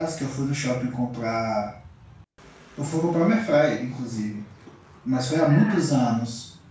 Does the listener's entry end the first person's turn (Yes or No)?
No